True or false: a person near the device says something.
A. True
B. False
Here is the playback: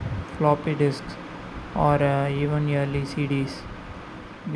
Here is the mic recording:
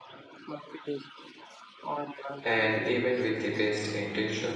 A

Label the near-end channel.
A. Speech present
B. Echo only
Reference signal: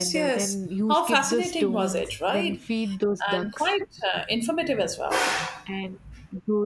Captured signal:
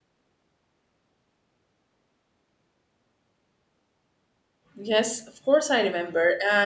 A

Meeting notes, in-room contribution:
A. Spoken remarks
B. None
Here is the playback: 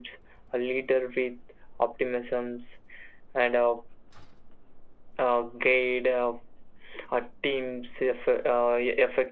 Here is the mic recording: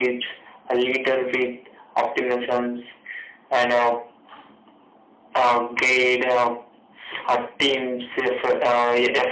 B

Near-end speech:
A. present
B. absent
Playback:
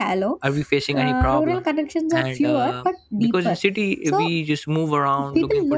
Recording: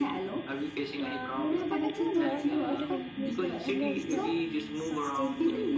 A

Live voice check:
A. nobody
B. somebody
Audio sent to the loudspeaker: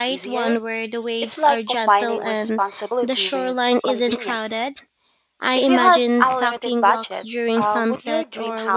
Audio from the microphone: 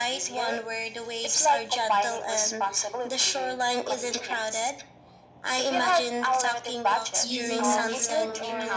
B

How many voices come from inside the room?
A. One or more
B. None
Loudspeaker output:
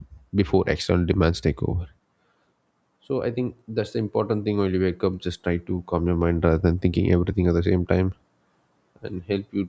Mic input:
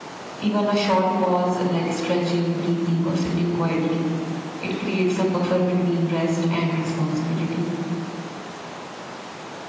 A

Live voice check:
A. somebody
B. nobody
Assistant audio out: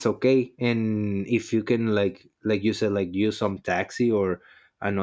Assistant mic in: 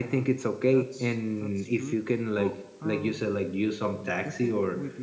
A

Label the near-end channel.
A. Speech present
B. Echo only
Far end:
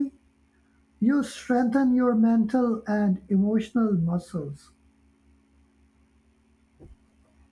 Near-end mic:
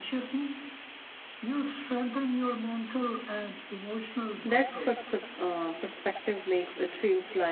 A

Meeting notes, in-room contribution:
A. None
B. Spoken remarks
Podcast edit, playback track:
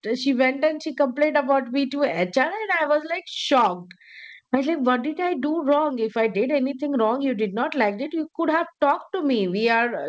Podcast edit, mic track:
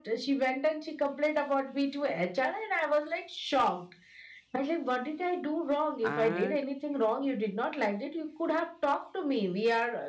B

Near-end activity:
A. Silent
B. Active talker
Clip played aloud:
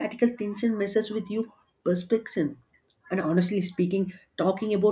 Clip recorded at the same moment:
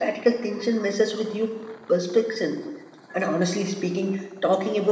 A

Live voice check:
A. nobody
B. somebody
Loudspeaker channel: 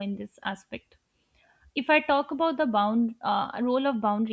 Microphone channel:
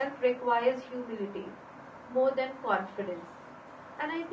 B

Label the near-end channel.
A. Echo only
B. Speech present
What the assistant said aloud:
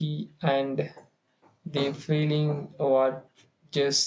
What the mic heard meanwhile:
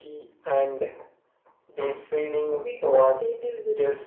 B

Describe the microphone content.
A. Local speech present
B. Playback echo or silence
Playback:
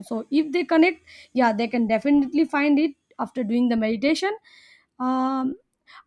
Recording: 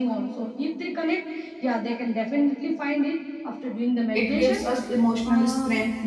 A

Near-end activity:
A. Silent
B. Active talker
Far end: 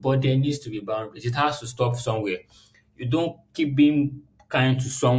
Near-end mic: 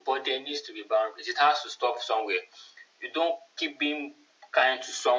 A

